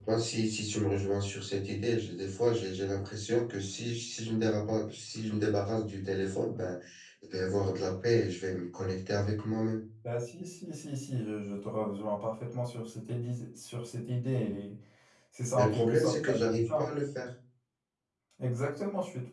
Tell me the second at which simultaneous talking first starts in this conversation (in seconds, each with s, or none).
15.6 s